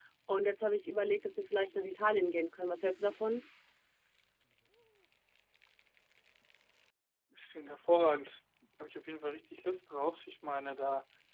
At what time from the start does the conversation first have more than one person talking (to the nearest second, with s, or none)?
none